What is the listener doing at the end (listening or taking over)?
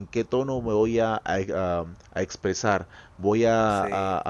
listening